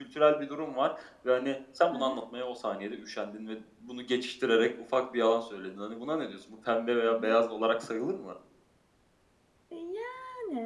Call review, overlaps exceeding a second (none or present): none